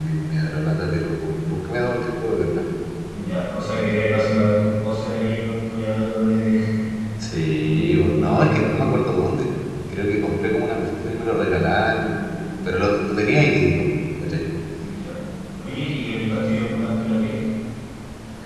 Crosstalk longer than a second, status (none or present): present